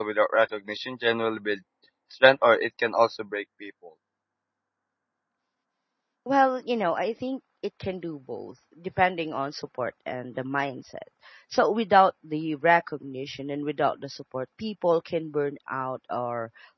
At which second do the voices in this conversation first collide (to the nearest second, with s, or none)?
none